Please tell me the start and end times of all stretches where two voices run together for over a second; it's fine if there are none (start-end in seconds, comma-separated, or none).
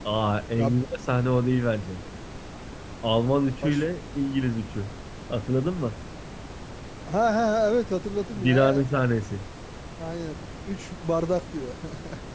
none